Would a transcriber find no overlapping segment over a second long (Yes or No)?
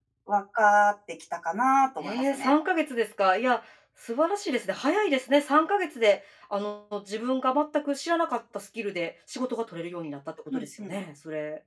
Yes